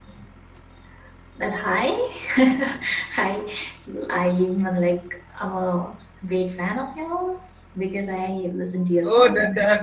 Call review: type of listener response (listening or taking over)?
taking over